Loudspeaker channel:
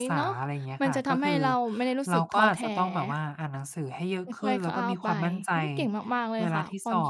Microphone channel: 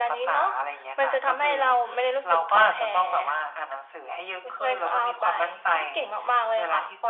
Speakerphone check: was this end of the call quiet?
Yes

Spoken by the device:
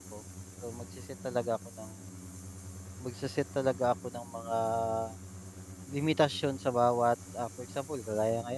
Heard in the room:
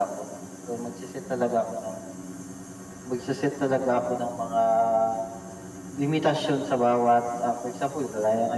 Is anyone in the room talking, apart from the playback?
No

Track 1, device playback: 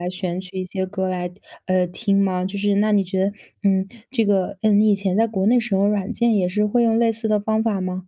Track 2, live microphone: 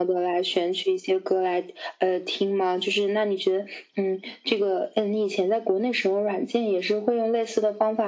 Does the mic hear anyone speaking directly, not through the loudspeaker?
No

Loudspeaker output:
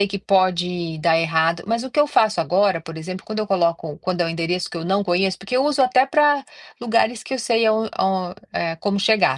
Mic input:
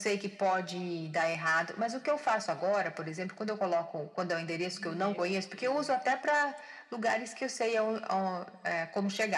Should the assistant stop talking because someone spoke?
Yes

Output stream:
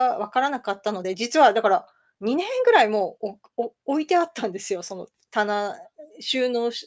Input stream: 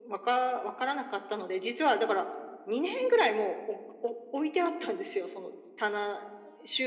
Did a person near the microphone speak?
No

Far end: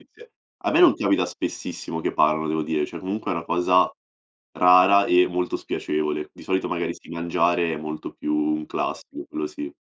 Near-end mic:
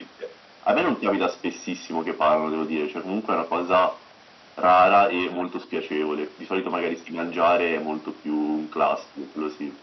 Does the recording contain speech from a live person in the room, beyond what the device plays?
No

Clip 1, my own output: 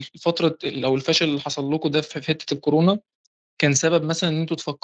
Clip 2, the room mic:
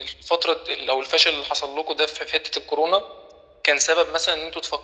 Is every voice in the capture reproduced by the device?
Yes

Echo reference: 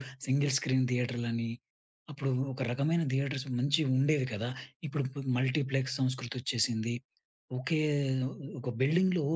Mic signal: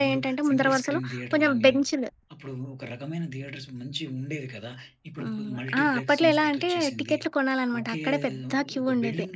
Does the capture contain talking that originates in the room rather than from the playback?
Yes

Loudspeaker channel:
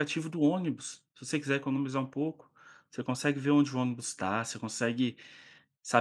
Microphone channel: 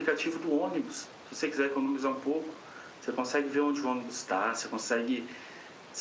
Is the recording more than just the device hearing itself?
No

